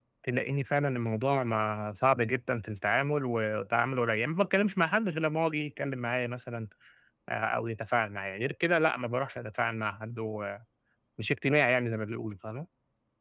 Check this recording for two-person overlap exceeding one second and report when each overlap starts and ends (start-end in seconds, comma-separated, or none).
none